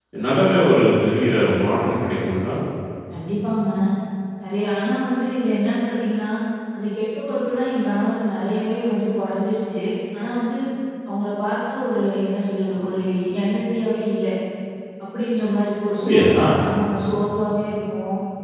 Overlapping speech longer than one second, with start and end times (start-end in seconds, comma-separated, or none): none